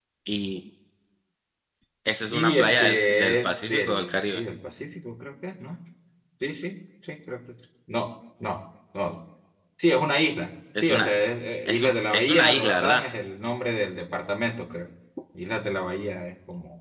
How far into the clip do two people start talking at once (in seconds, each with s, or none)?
2.3 s